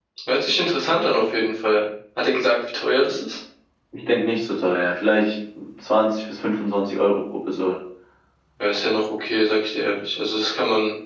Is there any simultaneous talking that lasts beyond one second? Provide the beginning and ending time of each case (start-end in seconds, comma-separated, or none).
none